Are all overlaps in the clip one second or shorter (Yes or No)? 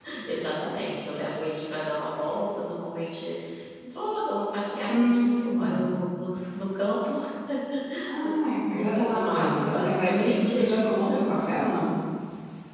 No